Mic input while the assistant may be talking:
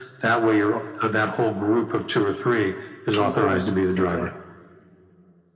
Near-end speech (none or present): present